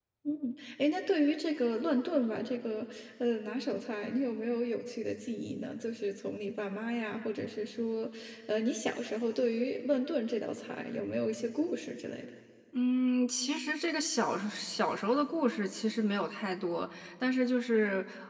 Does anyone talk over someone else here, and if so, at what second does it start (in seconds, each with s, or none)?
none